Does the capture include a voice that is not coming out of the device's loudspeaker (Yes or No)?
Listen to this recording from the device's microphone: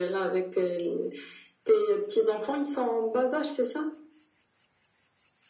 No